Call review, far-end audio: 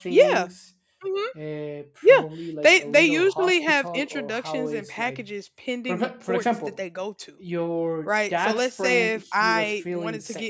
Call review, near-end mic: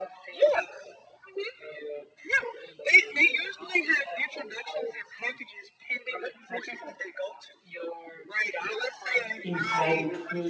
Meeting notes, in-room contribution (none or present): present